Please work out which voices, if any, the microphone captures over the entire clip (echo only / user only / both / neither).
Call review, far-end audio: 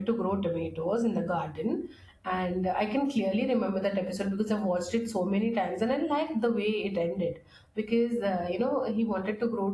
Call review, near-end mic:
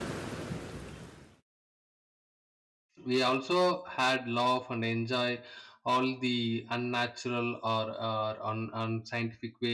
user only